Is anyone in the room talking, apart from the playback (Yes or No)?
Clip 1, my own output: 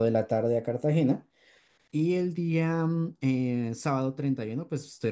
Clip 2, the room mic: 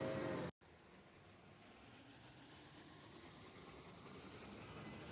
No